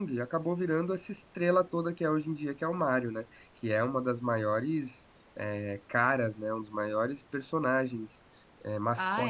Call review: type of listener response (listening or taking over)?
taking over